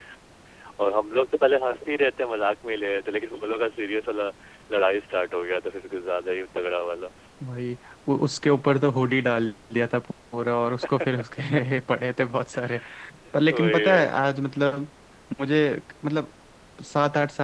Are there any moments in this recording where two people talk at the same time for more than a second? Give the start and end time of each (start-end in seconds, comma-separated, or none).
none